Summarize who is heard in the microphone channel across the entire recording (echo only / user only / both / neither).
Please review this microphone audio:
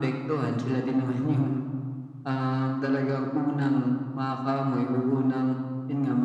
echo only